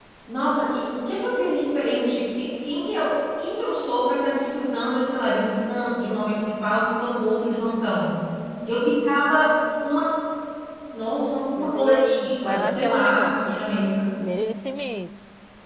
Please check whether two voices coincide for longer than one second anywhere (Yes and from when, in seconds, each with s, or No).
Yes, from 11.6 s